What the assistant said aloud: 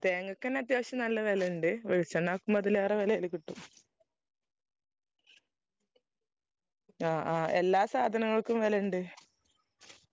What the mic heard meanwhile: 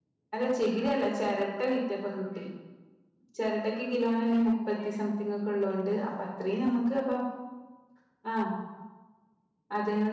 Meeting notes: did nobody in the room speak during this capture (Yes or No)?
No